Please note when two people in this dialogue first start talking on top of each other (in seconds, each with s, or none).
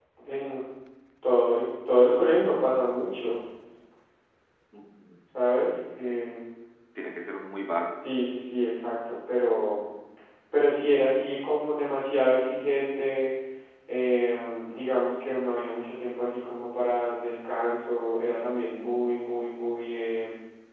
none